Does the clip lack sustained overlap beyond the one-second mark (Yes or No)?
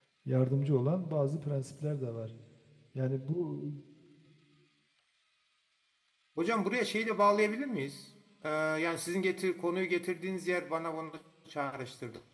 Yes